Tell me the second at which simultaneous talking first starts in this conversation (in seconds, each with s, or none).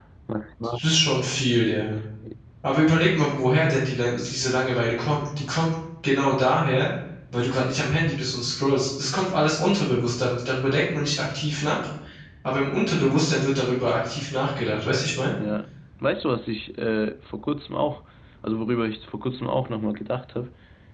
none